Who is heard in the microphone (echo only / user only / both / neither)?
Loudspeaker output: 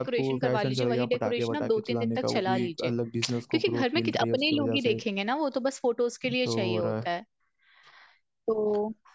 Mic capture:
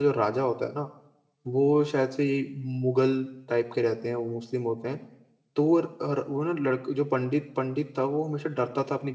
user only